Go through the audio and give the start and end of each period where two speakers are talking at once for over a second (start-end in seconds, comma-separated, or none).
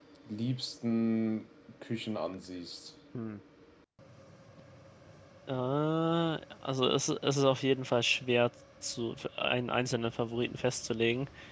none